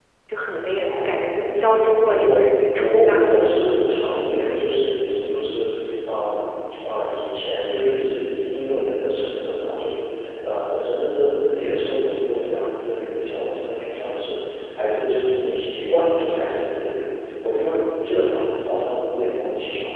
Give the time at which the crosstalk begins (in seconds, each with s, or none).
0.8 s